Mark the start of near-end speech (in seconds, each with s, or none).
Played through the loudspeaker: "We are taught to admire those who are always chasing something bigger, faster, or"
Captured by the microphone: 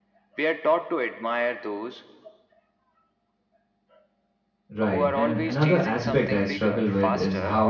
4.8 s